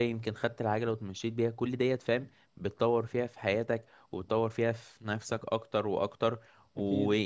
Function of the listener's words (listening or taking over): listening